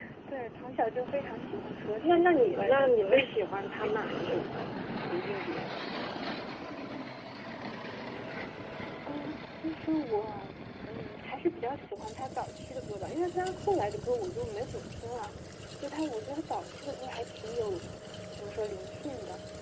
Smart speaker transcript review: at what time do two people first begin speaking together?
2 s

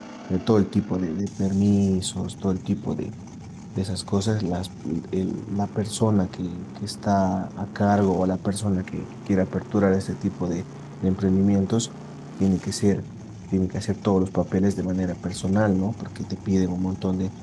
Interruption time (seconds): none

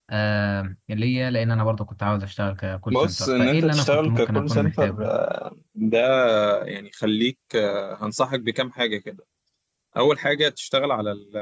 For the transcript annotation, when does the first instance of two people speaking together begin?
3 s

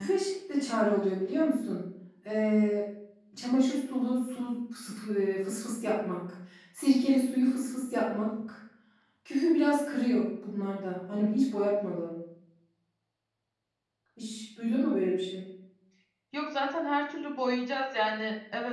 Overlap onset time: none

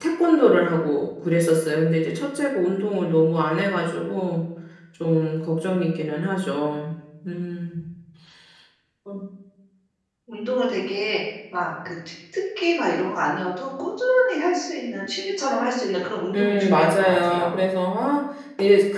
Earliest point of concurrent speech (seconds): 16 s

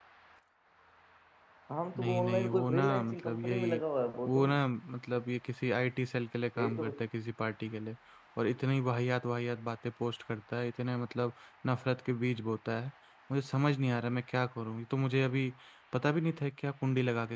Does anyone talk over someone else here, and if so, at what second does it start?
2 s

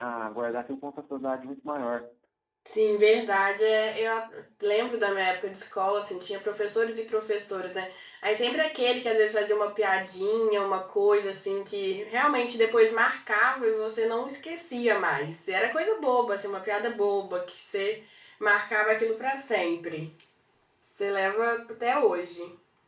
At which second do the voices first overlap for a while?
none

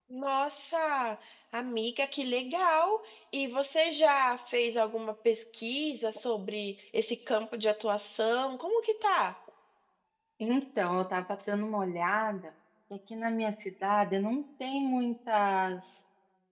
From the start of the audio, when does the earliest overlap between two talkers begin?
none

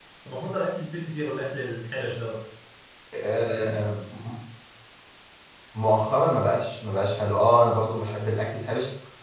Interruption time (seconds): none

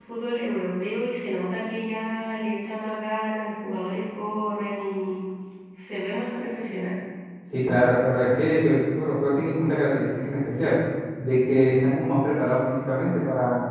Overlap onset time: none

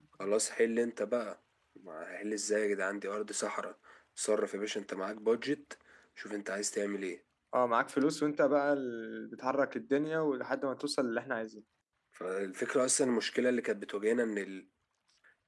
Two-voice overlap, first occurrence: none

